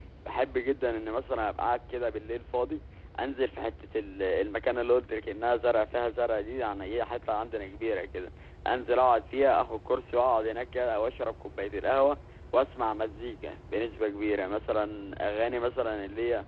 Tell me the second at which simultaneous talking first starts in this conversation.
none

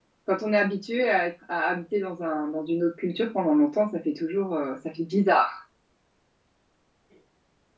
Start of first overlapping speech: none

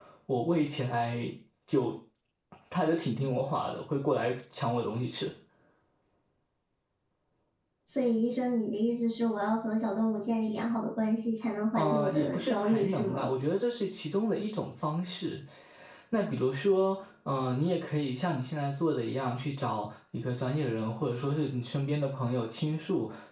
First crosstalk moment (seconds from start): 11.8 s

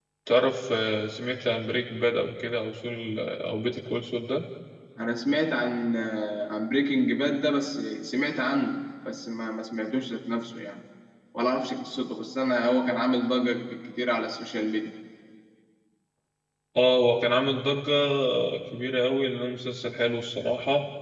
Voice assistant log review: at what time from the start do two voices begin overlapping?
none

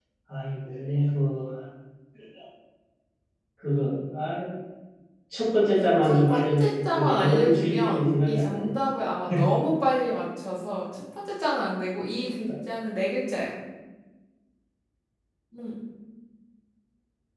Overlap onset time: 6.0 s

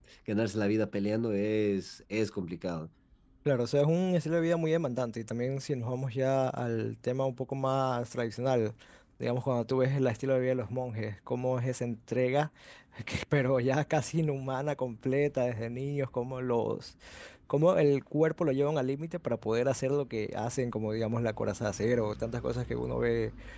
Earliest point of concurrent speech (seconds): none

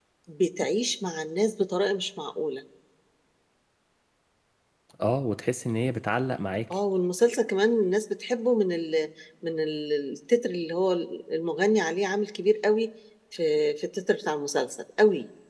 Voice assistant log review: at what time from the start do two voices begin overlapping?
none

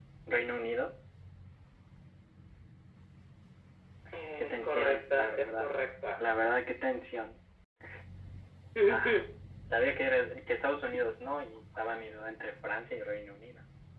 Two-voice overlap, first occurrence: 4.4 s

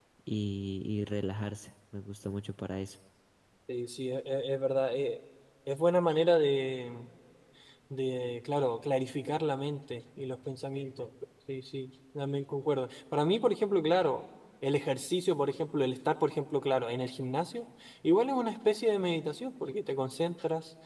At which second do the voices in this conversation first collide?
none

